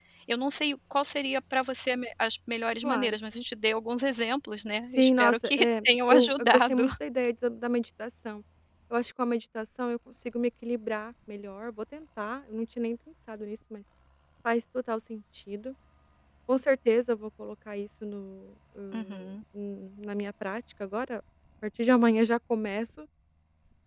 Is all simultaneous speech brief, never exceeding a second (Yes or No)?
No